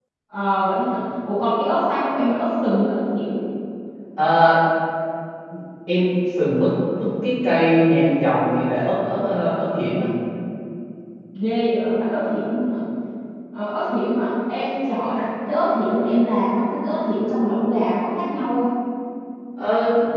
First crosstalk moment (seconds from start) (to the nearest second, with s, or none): none